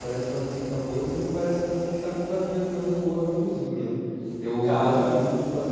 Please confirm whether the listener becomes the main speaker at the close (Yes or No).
No